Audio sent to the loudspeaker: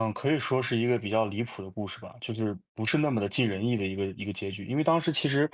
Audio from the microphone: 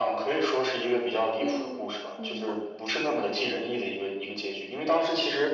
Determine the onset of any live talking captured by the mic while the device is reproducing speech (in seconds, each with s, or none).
1.4 s